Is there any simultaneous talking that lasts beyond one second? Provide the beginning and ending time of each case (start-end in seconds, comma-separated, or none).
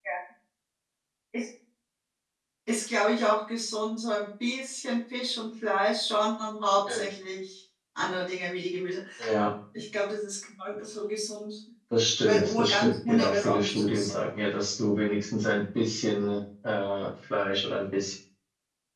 12.2-14.2